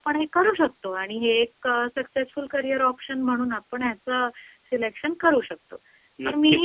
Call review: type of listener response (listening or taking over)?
taking over